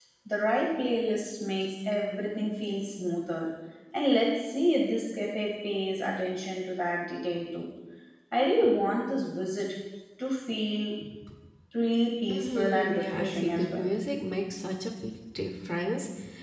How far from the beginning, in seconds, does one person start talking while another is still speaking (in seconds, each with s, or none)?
12.3 s